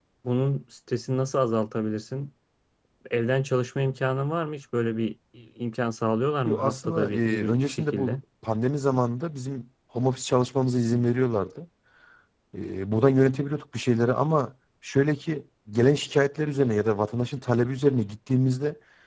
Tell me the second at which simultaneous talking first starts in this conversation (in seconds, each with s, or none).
6.5 s